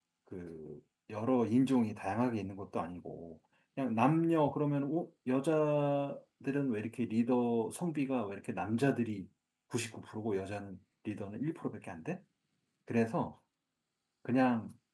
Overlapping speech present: No

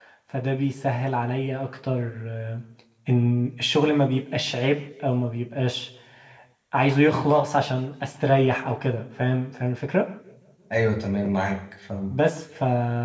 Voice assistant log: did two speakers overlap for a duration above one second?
No

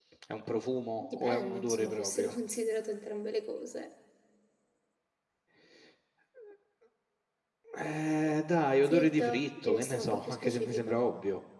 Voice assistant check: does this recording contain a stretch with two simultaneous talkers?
Yes, from 1.0 s

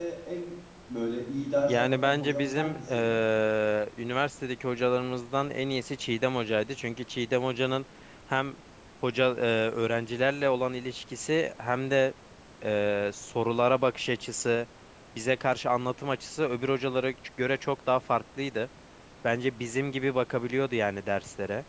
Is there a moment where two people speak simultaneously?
Yes, from 1.7 s

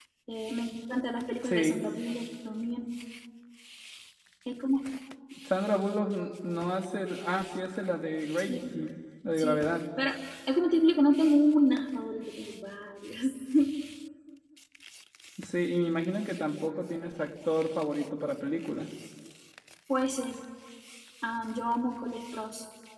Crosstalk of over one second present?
No

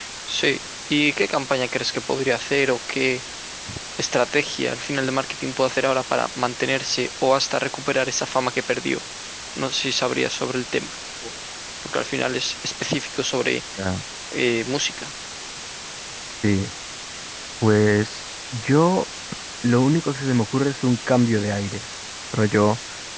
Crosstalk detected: No

